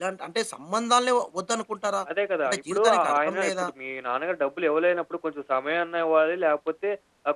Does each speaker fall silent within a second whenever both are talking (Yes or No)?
No